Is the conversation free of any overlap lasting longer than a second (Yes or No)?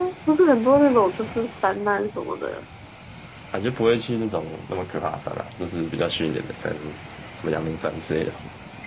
Yes